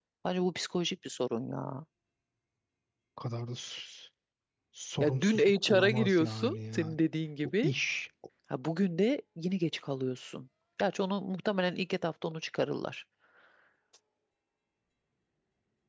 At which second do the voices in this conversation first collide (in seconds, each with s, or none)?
5.0 s